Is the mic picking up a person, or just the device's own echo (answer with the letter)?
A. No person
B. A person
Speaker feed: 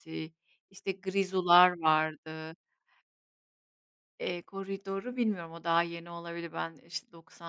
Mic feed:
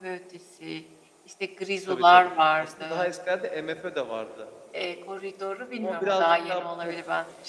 B